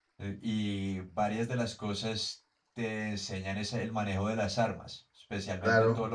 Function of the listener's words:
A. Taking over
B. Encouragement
A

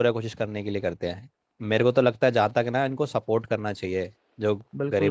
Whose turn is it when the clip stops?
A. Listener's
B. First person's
A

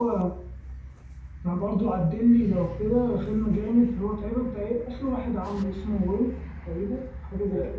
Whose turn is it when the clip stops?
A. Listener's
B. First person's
A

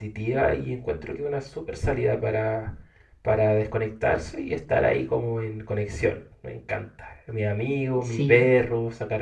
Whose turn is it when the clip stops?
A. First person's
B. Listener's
A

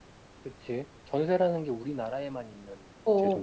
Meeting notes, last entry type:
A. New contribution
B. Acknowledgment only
A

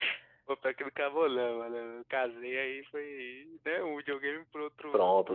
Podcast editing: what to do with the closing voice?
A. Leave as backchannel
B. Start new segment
B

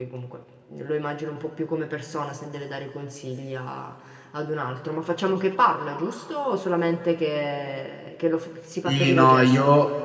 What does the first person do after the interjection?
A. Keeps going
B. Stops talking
B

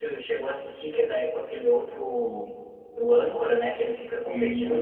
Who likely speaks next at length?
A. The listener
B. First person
B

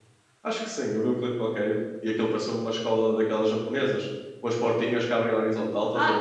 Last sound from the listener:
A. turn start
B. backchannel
A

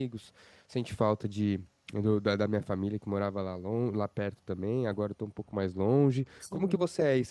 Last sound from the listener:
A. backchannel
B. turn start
A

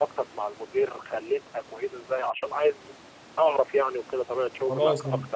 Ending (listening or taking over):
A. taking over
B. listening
A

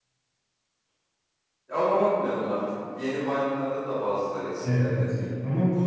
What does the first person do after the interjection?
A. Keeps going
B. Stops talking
B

